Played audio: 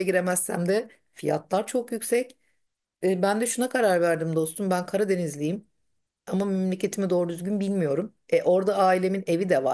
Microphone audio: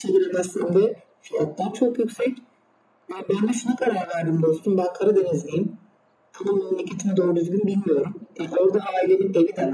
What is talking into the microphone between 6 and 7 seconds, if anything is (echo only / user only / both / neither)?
echo only